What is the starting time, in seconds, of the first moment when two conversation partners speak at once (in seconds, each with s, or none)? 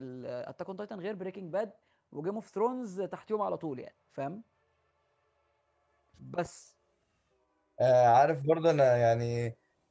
none